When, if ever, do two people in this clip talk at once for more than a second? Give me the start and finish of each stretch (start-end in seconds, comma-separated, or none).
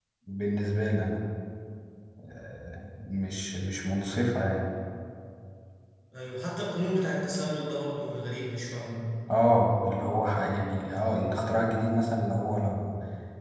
none